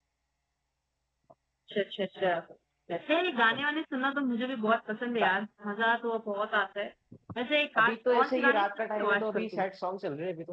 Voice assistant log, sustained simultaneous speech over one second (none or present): present